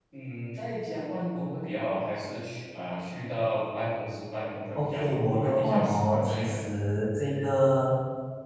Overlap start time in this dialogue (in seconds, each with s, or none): 4.8 s